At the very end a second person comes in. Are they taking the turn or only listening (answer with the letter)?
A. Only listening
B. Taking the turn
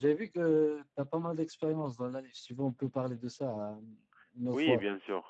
B